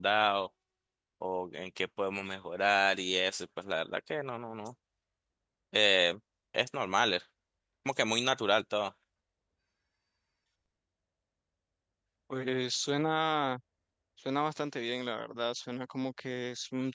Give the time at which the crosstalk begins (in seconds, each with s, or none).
none